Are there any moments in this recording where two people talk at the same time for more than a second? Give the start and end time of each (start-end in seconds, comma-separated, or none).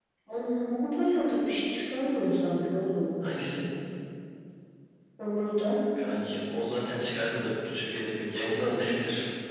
none